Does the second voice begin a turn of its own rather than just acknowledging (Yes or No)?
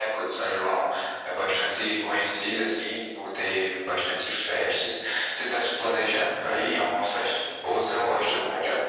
Yes